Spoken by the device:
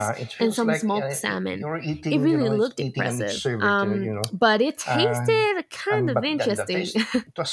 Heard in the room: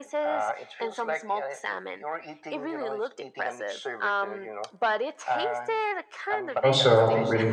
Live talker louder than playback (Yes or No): Yes